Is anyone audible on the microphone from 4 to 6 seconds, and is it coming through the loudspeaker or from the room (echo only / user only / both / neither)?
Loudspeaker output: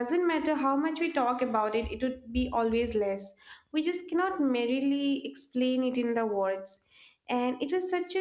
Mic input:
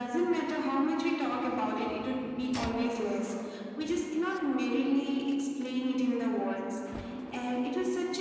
echo only